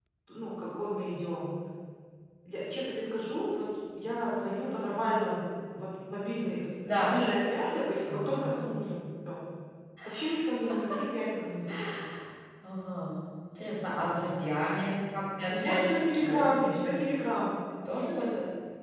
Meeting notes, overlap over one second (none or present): present